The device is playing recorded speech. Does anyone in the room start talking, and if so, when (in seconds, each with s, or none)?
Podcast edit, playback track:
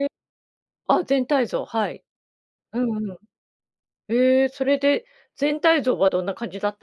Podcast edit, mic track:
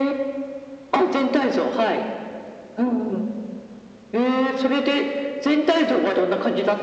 none